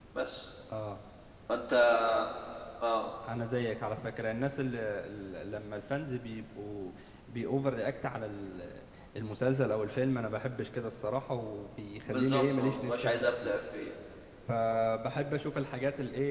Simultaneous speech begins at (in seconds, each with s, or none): 12.1 s